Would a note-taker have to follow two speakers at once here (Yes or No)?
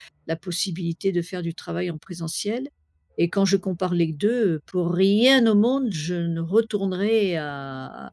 No